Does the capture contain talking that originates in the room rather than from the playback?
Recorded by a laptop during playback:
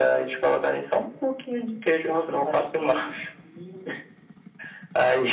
No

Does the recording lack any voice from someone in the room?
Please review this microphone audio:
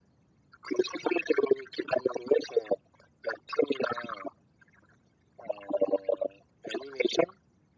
Yes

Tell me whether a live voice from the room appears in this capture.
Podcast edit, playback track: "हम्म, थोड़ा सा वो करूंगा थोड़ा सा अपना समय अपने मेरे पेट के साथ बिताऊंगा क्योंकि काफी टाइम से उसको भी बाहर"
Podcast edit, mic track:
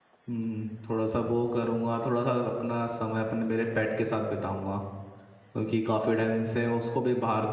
No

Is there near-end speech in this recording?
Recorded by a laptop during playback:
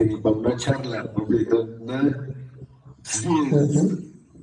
Yes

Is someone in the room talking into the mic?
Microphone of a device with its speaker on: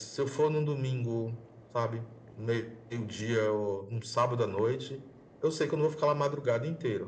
No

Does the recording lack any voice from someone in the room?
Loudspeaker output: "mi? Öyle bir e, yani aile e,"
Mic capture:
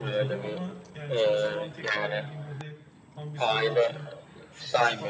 No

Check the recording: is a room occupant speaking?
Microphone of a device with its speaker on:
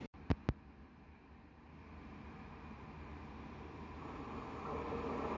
No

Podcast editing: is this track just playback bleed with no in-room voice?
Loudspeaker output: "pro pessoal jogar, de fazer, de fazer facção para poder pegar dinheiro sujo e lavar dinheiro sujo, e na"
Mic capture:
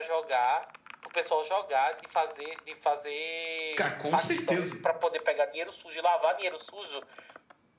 No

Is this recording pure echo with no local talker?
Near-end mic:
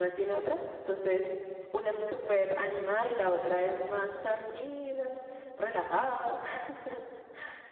No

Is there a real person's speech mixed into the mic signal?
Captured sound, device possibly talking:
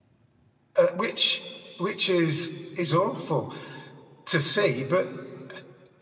Yes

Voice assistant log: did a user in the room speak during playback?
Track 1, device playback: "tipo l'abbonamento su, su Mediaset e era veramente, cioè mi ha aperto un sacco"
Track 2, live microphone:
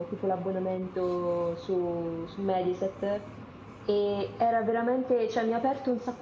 No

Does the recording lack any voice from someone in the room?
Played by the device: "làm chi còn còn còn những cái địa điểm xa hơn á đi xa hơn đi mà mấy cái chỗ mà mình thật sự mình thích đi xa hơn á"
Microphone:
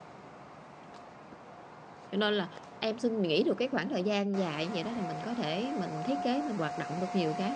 No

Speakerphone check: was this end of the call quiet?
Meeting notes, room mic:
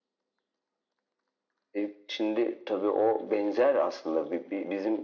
Yes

